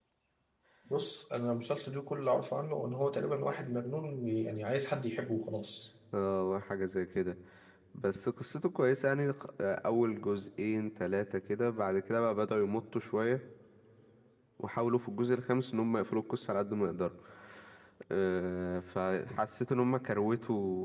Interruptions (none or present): none